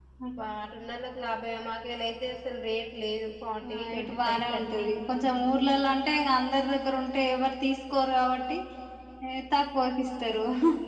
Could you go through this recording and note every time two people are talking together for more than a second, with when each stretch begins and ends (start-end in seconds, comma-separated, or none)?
3.7-4.9